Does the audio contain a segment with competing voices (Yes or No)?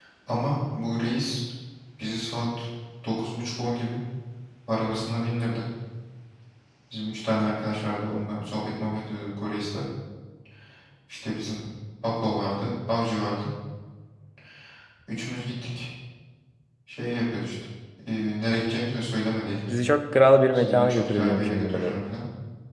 Yes